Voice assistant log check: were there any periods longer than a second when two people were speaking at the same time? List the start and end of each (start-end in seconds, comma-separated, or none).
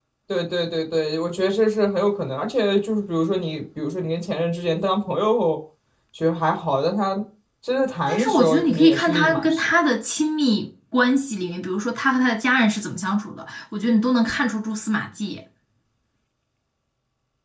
8.1-9.6